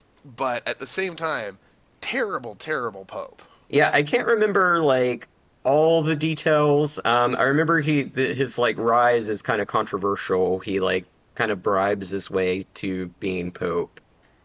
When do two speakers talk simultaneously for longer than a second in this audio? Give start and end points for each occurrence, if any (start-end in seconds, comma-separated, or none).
none